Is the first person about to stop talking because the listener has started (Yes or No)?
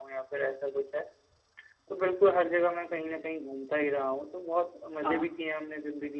No